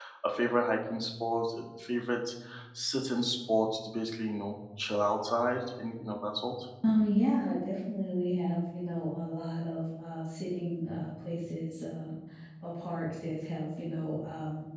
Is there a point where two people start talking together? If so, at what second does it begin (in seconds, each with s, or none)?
none